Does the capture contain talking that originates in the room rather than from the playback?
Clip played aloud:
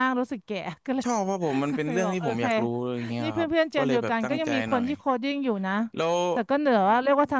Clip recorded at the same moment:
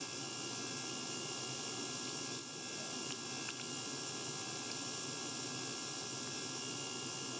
No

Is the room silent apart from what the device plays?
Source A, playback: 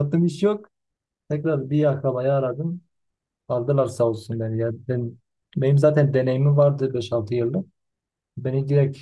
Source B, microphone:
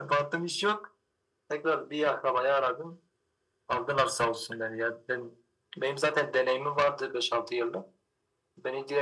Yes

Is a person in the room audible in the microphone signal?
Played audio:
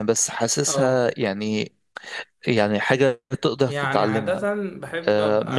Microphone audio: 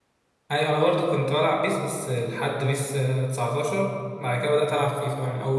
Yes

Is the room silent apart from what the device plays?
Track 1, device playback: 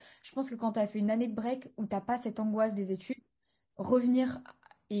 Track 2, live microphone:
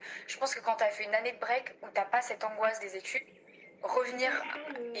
No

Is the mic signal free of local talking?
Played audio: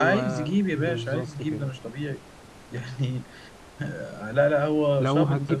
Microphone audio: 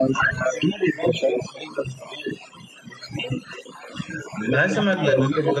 No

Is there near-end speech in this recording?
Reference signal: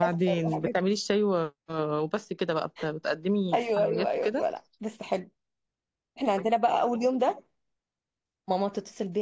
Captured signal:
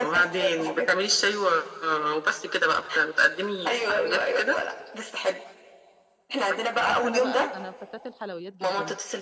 Yes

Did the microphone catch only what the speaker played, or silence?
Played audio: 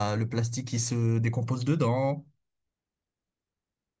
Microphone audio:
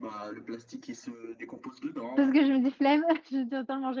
No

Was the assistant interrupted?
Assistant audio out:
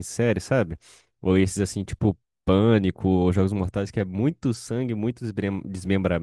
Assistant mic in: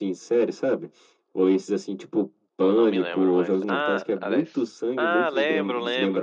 Yes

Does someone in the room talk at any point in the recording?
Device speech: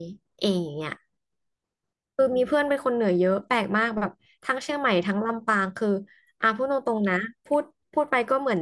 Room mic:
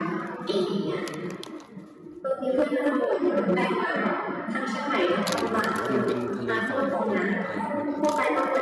Yes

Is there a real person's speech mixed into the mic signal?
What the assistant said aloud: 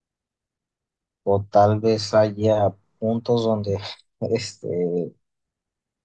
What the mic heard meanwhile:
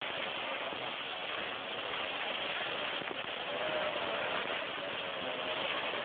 No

